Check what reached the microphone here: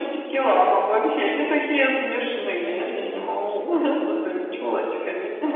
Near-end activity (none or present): present